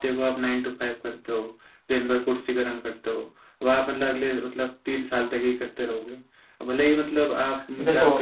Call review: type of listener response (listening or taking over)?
taking over